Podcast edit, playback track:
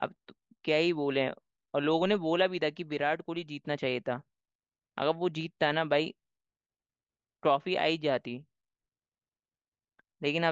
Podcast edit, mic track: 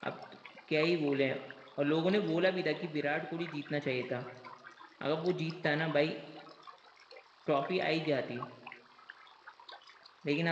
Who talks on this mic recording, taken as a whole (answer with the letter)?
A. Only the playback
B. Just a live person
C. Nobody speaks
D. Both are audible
A